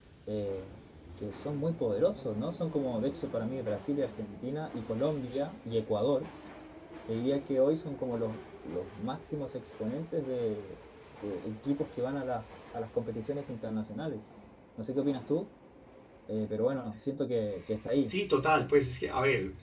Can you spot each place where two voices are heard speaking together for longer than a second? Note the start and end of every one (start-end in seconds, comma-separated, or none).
none